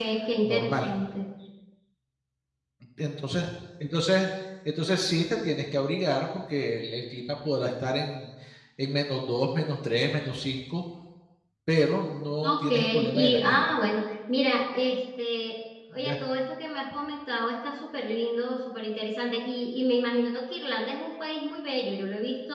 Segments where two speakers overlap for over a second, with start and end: 12.4-13.7

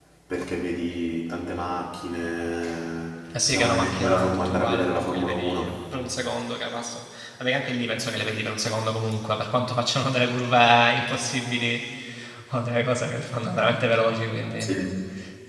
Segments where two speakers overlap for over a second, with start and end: 3.5-5.7

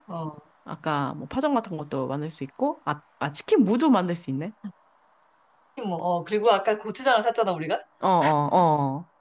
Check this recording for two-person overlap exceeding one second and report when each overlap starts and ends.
none

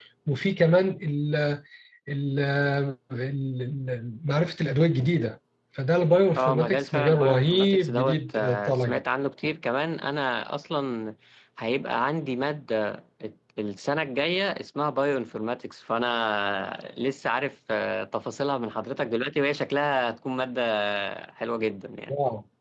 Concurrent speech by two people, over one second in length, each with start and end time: 6.4-9.0

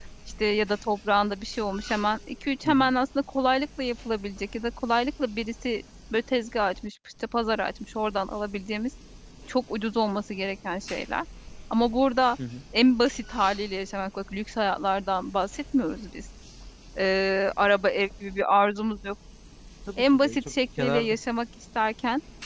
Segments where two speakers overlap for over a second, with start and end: 20.0-21.2

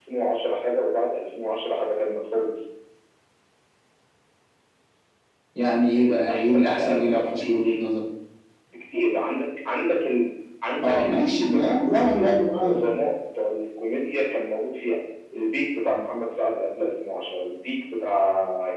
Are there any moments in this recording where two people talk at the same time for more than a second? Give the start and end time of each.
6.0-7.8, 10.8-12.8

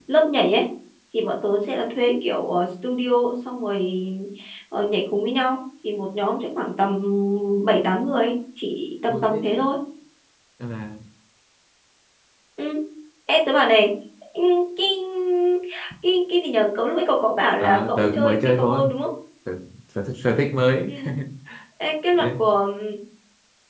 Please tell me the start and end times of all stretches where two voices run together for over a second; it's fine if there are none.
17.6-18.9

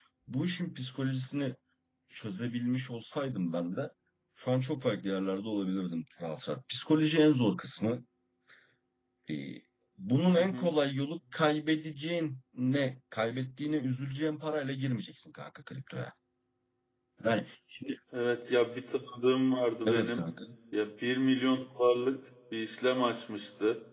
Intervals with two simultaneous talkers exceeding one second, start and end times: none

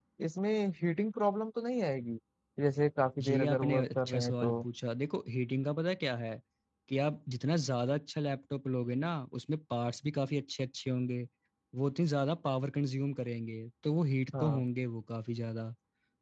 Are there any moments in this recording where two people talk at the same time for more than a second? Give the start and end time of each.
3.3-4.6

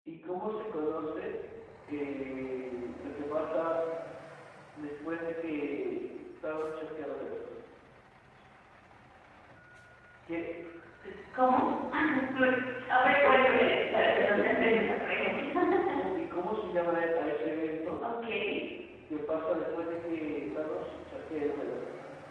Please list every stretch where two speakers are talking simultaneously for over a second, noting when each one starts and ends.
13.2-14.9

